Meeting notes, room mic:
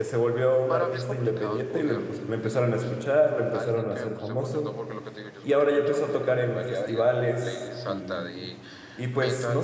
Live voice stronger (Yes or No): Yes